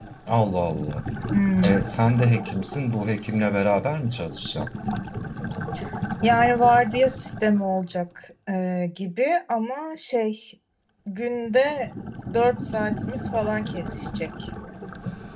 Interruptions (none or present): none